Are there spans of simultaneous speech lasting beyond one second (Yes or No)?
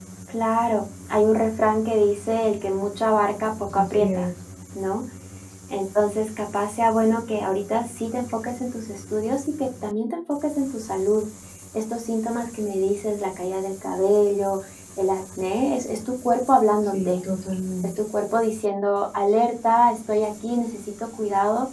No